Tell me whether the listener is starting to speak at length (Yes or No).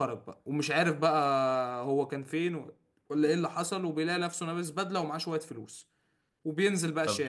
Yes